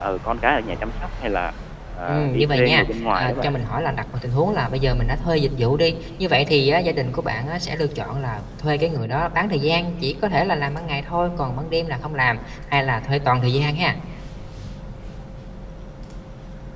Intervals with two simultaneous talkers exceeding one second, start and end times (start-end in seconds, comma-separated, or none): 2.0-3.5